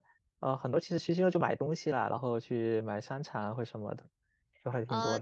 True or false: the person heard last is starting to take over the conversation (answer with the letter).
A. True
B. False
A